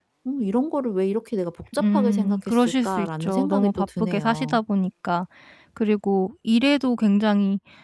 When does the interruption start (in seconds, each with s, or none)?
1.7 s